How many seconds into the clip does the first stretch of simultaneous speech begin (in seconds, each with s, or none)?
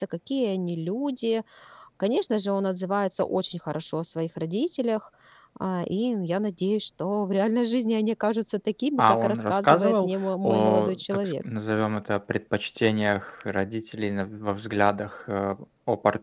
9.0 s